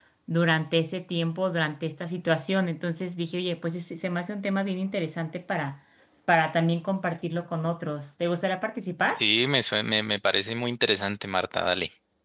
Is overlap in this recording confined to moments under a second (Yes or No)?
Yes